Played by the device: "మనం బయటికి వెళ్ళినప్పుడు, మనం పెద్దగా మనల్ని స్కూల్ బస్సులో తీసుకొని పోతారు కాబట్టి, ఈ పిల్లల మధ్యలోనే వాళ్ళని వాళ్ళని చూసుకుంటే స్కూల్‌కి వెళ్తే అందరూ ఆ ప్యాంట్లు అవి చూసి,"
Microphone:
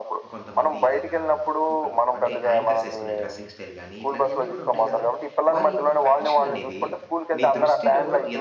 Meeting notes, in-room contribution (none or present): present